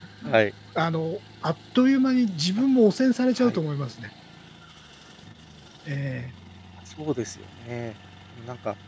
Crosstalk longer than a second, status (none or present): none